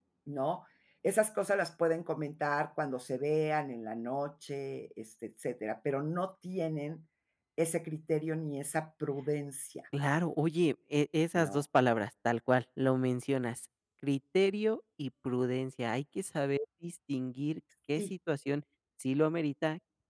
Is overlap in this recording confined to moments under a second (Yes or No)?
Yes